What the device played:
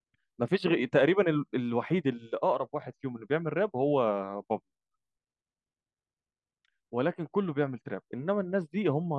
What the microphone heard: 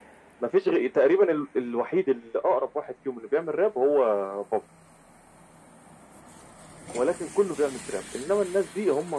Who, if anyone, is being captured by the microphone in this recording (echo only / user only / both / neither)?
echo only